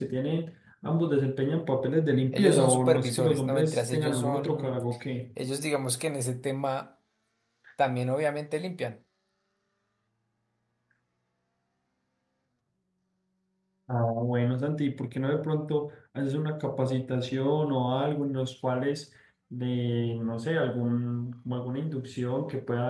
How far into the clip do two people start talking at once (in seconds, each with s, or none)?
2.3 s